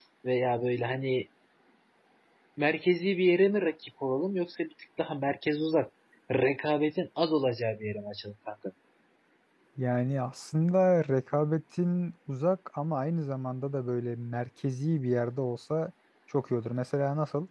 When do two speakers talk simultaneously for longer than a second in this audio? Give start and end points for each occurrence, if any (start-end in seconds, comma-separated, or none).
none